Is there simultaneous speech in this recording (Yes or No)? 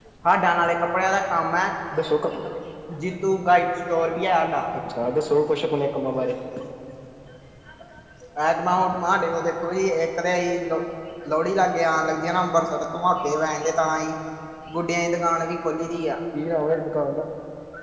No